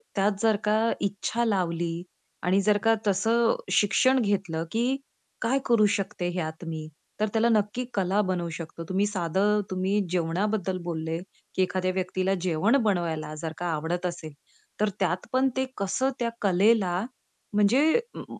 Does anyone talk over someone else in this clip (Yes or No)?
No